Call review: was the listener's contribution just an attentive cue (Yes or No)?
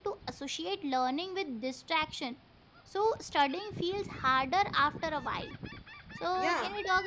Yes